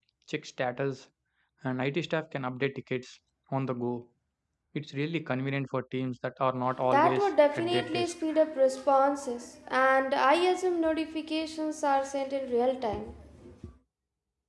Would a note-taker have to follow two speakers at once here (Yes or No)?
Yes